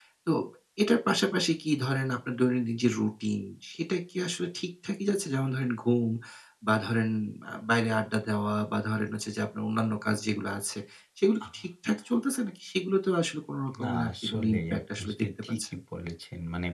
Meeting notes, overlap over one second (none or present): present